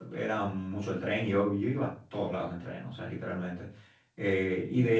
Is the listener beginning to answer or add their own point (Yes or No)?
No